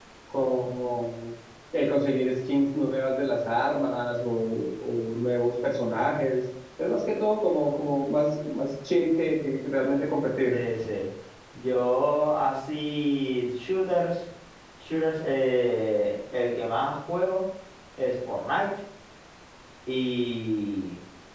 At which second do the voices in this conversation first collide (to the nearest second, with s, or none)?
none